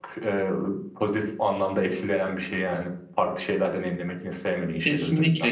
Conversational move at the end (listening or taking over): taking over